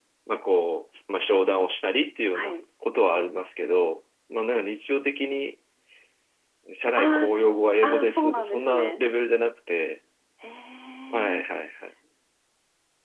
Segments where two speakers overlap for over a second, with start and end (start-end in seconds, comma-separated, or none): 7.0-9.0